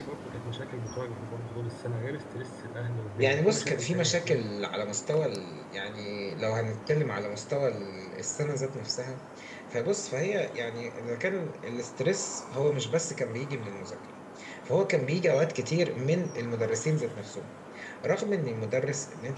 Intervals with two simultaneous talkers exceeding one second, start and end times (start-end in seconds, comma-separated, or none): 3.2-4.4